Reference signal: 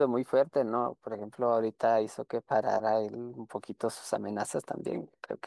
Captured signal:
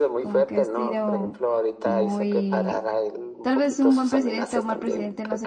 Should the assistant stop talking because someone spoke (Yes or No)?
Yes